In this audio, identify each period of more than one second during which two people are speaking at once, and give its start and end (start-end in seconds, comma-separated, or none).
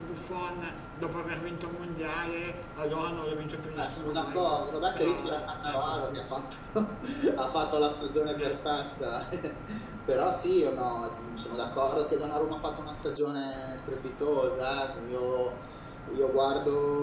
3.8-6.4